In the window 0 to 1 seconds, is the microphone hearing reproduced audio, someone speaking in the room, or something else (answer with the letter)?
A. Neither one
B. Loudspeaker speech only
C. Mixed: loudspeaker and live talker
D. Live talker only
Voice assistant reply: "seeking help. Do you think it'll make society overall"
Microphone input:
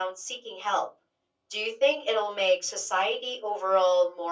B